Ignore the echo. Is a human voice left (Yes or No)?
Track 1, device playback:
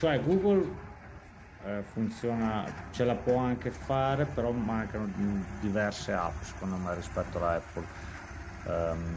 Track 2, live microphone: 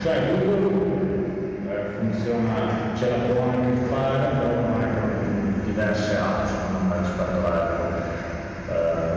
No